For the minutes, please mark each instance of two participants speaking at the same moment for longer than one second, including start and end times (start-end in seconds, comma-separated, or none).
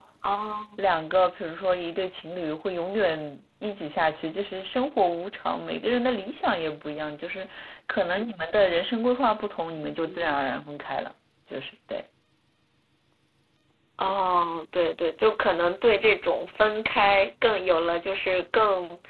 none